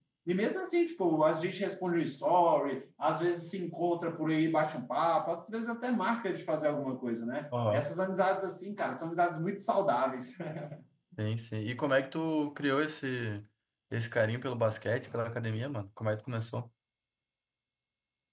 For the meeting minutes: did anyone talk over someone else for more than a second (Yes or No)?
No